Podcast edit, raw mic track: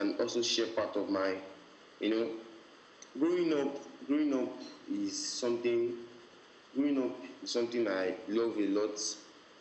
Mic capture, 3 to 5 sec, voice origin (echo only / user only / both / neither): echo only